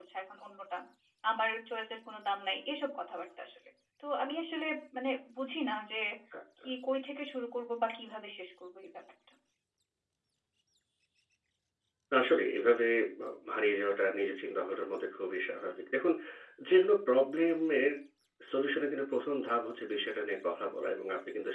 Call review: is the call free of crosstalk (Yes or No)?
Yes